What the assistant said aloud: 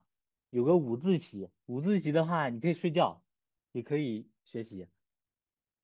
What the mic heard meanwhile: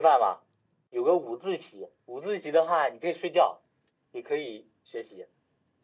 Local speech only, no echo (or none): none